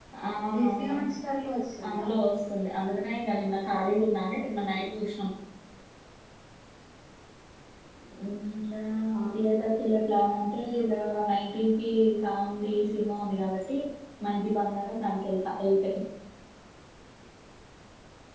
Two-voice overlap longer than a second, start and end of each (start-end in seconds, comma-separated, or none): none